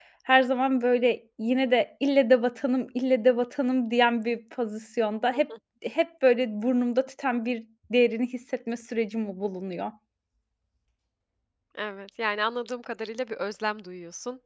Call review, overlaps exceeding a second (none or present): none